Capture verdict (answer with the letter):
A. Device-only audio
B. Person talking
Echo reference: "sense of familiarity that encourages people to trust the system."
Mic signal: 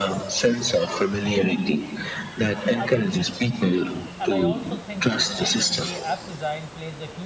B